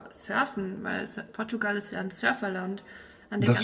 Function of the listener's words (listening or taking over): listening